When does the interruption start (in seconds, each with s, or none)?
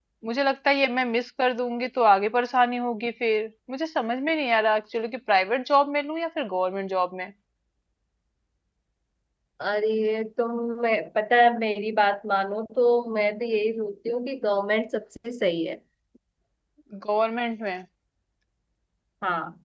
none